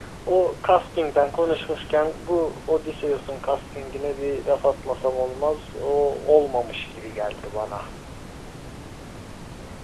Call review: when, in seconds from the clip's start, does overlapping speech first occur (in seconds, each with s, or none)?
none